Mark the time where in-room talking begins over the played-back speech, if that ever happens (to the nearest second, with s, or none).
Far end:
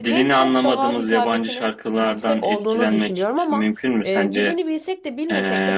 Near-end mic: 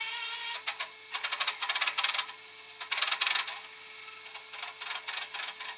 none